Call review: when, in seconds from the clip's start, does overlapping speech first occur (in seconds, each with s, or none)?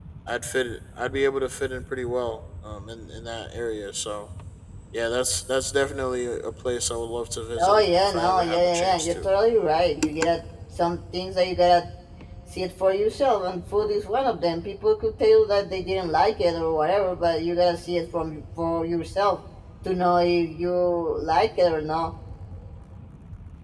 7.6 s